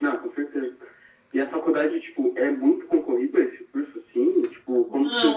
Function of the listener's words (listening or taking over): taking over